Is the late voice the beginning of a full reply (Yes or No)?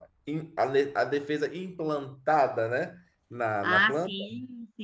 Yes